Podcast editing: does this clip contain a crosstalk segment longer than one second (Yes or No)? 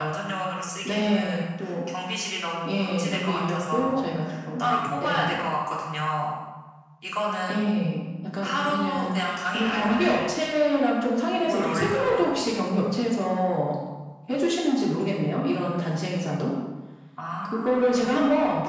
Yes